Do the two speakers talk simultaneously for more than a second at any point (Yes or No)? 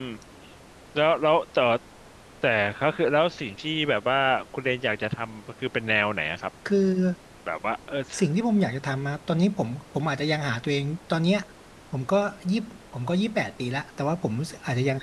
No